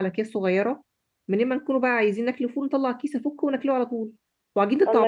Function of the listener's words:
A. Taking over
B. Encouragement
A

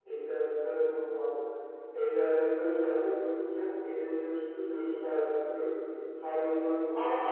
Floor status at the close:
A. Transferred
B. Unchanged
A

